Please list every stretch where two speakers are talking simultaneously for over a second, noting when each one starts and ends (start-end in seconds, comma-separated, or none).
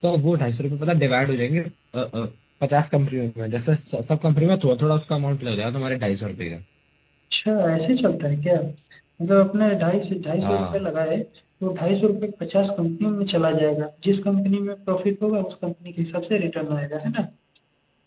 none